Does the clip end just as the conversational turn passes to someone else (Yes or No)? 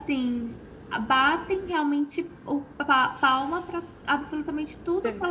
No